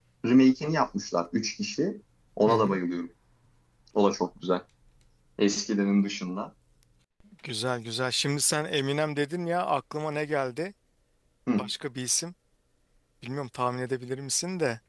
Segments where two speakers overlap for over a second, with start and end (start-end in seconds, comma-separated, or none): none